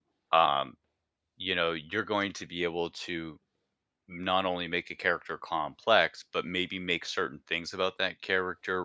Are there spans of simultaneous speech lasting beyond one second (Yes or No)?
No